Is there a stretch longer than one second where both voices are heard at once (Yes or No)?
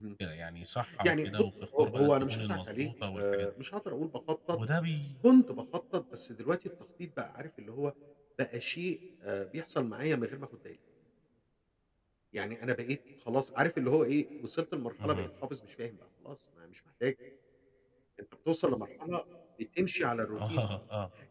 Yes